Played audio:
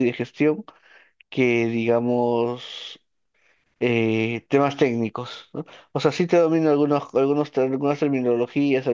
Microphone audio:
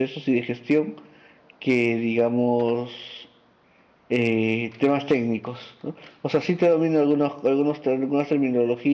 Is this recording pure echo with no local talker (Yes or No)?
Yes